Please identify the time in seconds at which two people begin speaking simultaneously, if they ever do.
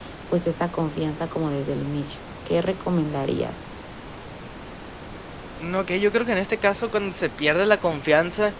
none

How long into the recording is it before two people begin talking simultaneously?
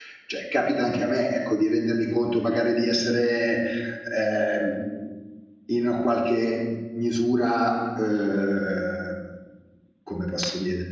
none

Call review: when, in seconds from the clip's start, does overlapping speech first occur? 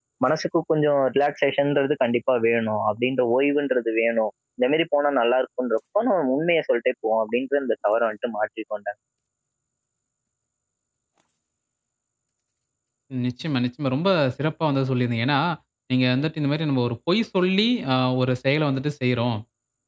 none

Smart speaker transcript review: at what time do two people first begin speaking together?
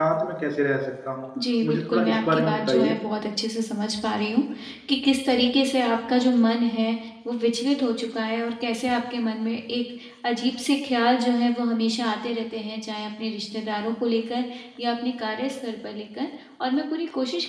1.6 s

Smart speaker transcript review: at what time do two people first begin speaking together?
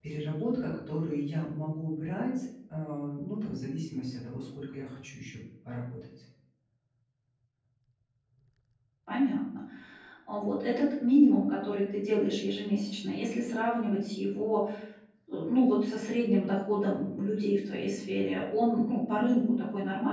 none

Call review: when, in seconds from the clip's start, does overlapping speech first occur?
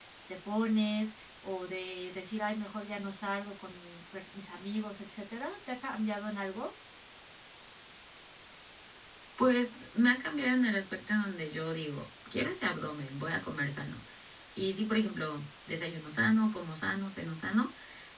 none

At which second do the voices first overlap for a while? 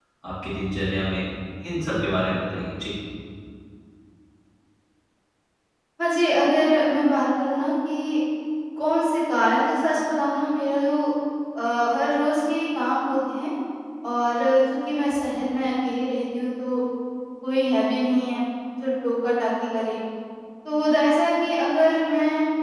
none

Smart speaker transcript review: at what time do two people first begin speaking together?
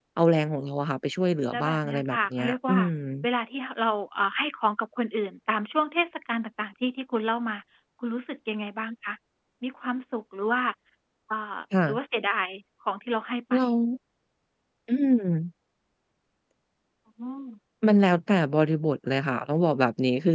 1.5 s

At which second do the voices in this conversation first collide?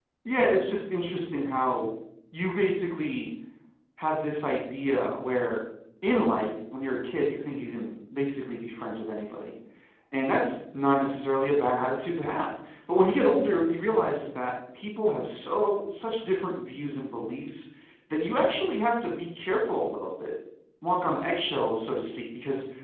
none

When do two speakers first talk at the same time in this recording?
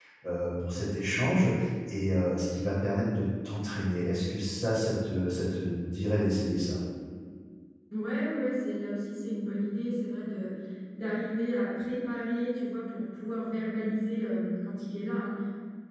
none

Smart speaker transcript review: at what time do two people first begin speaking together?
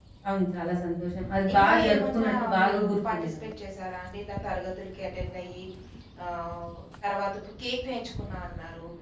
1.5 s

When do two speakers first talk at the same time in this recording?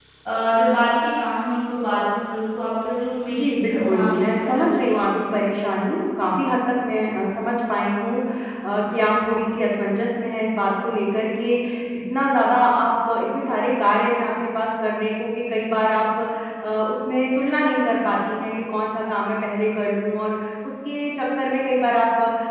3.3 s

